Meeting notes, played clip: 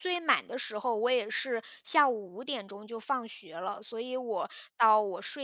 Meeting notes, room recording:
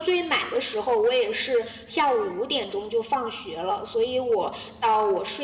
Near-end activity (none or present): none